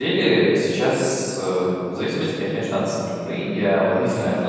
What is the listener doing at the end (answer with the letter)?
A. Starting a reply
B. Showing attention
B